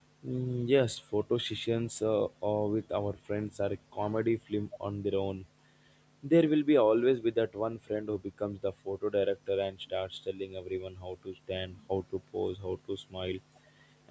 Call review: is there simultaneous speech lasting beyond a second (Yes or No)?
No